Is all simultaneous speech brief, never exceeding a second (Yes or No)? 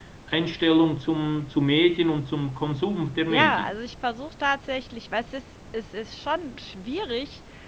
Yes